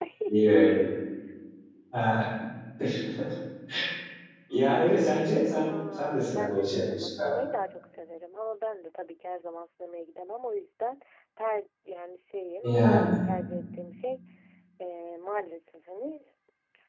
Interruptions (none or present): present